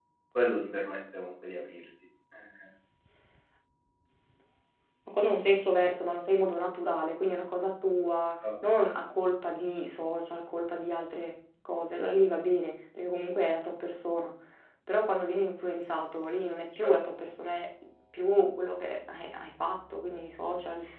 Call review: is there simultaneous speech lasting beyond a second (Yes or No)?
No